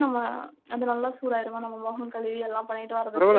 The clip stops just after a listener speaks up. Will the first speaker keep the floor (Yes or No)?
No